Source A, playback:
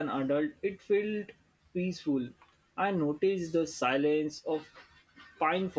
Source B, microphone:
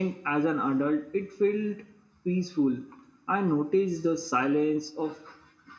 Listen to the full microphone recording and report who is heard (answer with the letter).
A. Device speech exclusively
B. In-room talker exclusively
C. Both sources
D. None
A